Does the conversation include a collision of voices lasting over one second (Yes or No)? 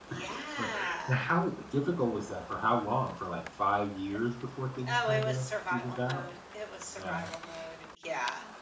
Yes